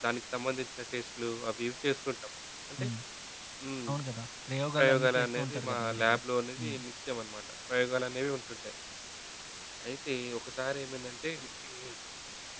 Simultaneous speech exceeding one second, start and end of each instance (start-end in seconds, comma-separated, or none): 4.8-6.2